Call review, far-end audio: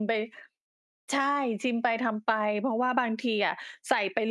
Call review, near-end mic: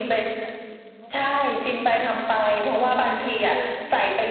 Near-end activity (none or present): present